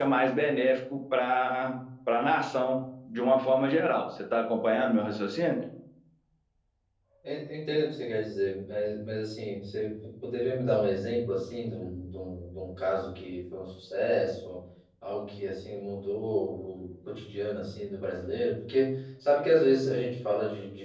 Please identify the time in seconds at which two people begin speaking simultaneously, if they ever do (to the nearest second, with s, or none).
none